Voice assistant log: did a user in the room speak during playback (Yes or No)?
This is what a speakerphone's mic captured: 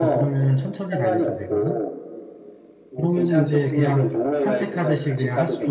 Yes